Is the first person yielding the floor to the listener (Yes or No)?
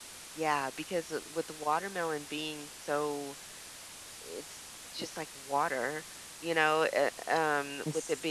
No